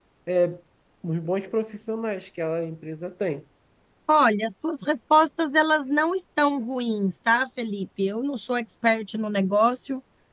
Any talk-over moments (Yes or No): No